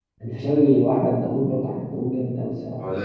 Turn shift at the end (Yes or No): No